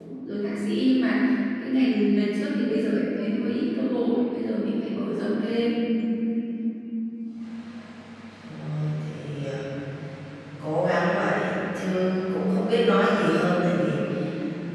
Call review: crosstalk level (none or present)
none